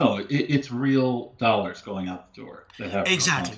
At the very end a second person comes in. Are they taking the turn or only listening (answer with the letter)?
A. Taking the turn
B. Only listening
A